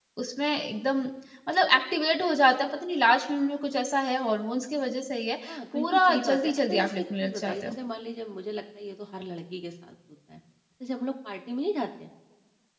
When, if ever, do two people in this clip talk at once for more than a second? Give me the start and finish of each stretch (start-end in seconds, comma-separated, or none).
5.5-7.8